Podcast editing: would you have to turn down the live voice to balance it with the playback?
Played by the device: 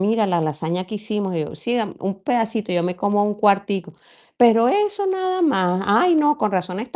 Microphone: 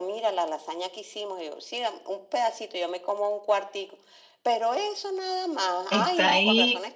Yes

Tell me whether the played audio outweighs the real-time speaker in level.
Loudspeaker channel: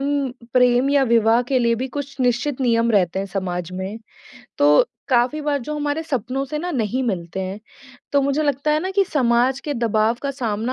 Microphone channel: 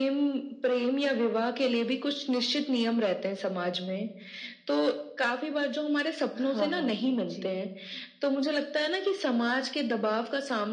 Yes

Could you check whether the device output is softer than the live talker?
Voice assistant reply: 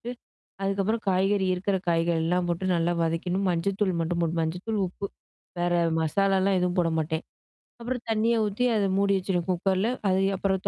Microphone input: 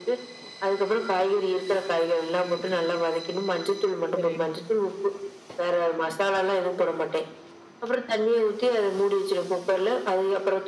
No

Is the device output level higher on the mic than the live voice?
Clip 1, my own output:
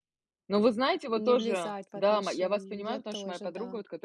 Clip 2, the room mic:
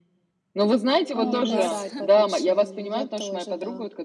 Yes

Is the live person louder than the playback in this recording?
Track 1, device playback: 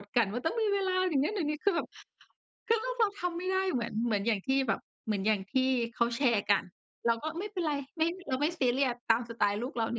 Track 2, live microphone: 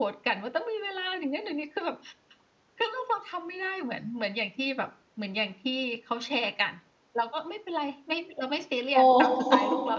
Yes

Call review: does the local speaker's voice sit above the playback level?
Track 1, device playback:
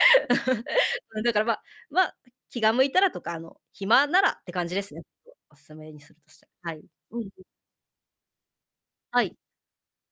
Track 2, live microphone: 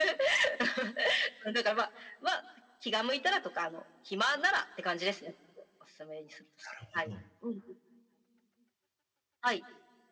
No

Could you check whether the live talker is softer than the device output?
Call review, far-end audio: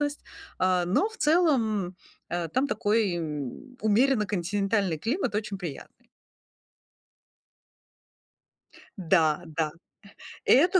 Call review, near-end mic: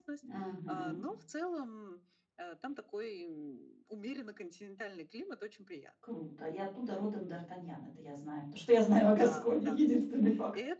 No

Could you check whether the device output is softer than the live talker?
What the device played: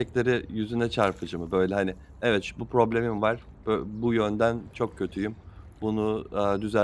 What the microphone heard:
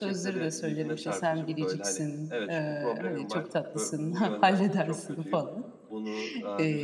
Yes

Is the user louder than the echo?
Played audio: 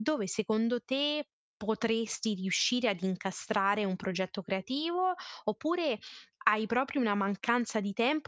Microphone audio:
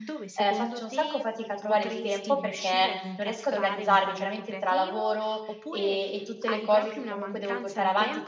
Yes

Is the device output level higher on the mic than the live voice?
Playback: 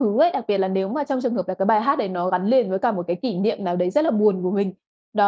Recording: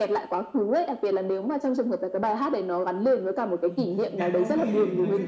Yes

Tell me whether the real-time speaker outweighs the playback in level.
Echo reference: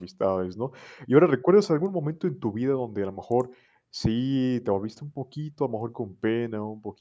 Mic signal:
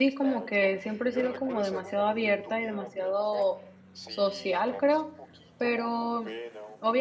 Yes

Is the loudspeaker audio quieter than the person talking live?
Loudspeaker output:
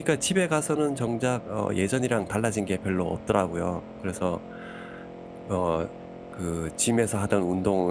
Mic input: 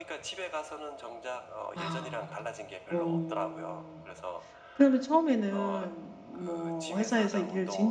Yes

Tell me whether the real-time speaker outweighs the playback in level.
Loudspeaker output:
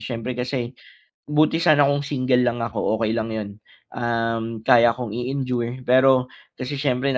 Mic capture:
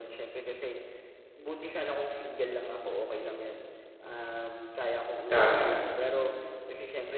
Yes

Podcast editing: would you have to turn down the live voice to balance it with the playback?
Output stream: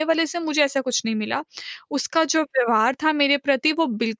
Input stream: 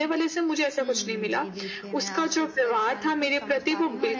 No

